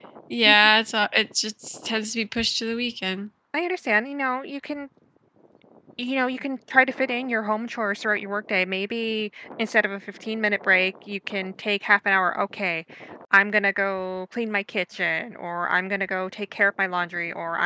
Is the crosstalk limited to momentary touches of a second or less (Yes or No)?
Yes